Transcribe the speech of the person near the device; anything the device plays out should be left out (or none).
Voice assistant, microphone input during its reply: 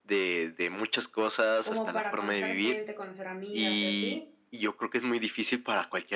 como para conocer gente, conocer amigas y así,